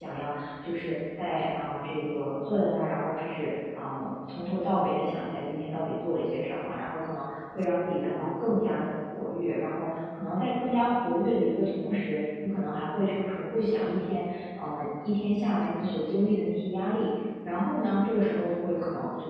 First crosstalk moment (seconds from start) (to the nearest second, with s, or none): none